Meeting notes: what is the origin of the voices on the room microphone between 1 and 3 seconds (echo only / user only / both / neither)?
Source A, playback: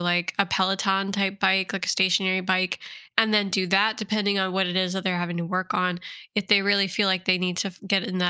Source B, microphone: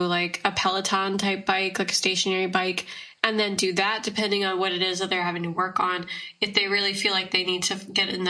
echo only